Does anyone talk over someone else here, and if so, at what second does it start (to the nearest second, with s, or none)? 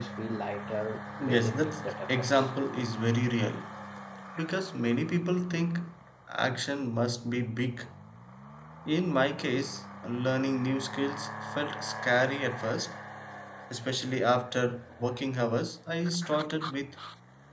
1 s